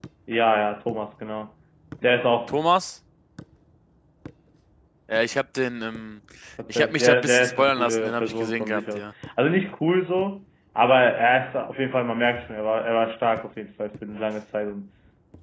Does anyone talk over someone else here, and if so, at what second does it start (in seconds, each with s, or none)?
6.7 s